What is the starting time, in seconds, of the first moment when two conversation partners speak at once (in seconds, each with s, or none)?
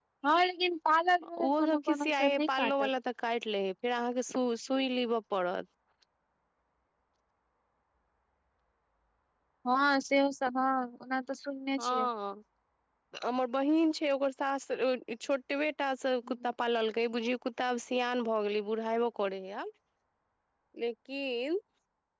1.4 s